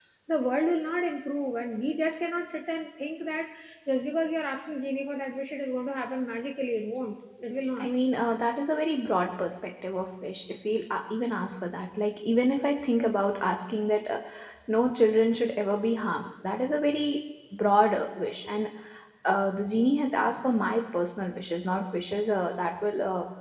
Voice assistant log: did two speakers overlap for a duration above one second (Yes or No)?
No